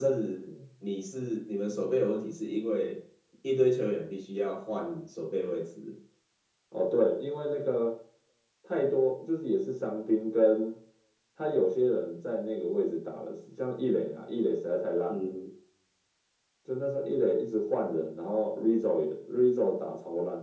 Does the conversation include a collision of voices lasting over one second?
No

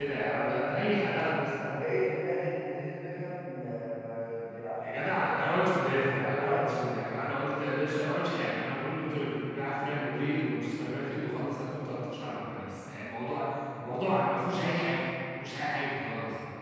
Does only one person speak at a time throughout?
No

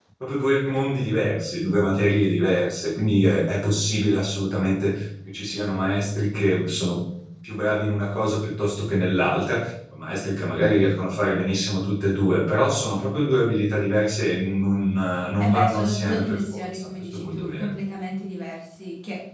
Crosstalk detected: Yes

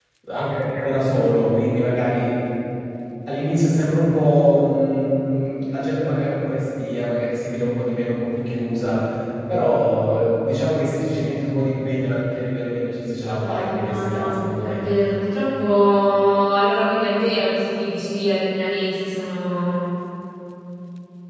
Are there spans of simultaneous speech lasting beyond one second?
Yes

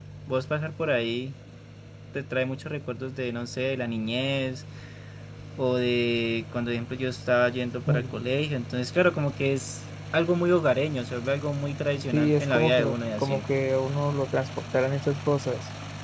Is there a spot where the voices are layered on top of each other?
Yes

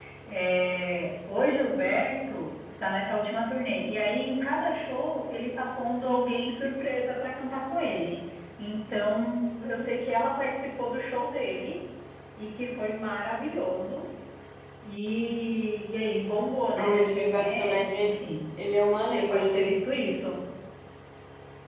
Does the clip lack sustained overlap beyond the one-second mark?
No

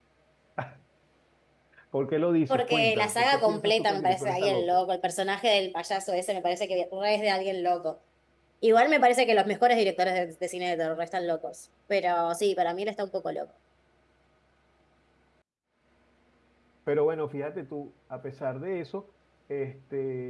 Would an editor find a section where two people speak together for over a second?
Yes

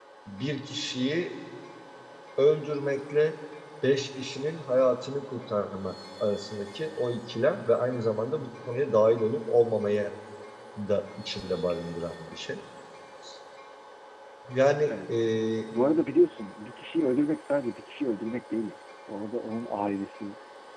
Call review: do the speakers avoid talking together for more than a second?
Yes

